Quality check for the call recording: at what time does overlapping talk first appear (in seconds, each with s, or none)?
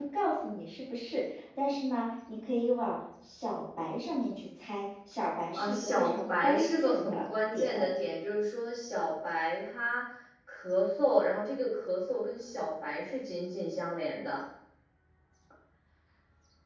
5.5 s